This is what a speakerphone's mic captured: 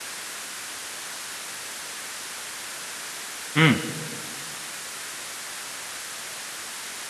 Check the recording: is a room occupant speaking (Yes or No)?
Yes